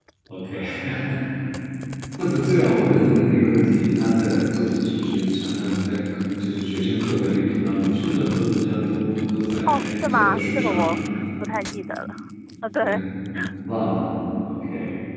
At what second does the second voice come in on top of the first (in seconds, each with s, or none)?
9.7 s